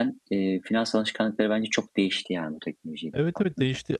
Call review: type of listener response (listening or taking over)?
taking over